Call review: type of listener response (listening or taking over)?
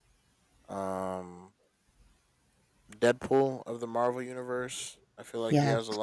listening